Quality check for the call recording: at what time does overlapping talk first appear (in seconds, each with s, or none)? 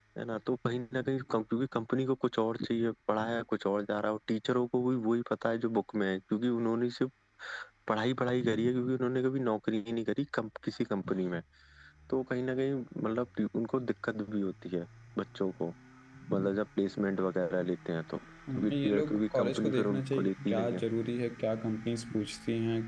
18.5 s